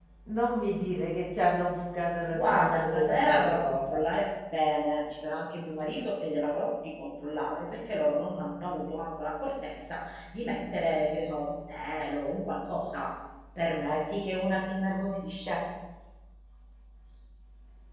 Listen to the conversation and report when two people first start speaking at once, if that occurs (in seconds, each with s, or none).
2.3 s